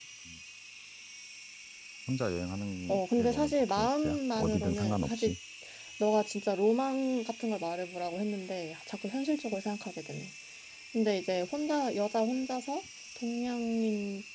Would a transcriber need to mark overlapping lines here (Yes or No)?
Yes